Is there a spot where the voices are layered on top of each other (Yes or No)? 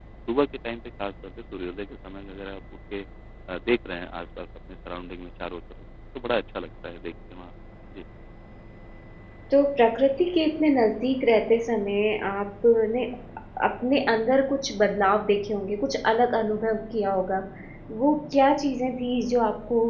No